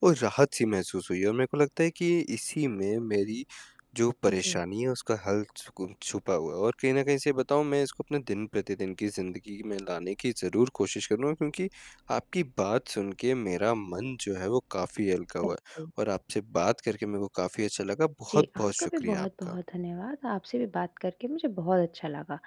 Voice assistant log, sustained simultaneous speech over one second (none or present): present